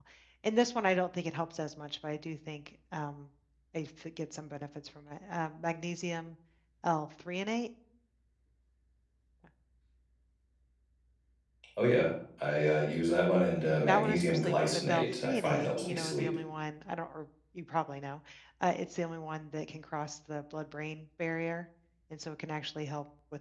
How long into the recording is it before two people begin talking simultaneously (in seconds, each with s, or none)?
13.9 s